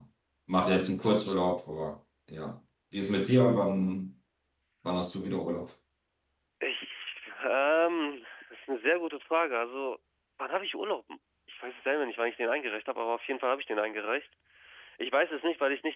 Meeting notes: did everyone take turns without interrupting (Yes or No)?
Yes